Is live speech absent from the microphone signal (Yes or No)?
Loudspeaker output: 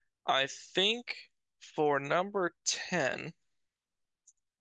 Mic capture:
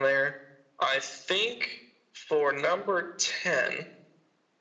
Yes